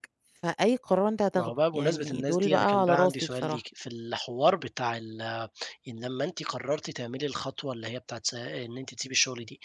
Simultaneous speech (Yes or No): Yes